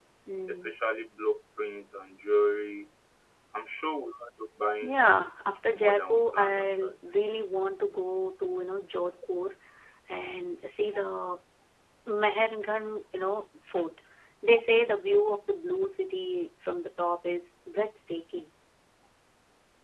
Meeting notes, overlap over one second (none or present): present